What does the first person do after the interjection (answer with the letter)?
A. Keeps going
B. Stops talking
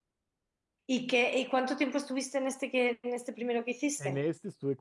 B